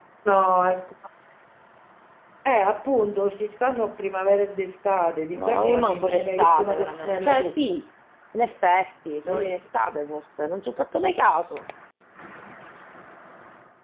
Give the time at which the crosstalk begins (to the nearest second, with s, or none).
5 s